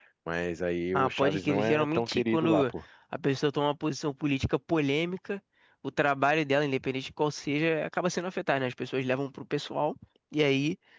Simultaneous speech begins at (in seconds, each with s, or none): 0.9 s